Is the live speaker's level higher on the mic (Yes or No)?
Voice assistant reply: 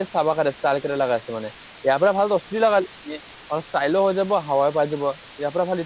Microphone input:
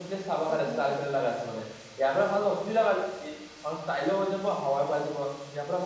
No